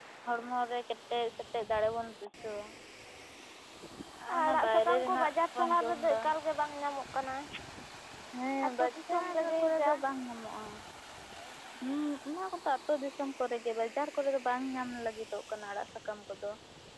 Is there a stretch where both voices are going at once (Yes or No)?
Yes